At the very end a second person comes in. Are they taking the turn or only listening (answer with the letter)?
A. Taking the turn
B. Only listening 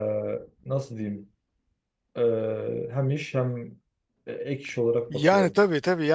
A